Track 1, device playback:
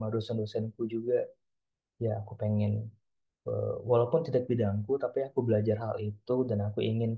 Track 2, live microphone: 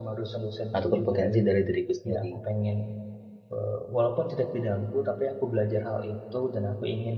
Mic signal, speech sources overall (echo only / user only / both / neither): both